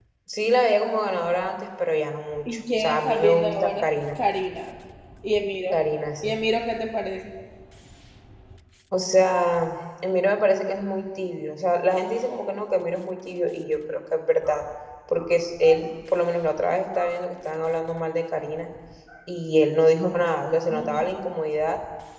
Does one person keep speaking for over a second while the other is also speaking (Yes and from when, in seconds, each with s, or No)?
Yes, from 2.4 s